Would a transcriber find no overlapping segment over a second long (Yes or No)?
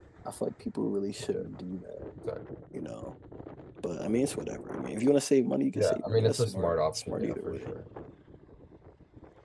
No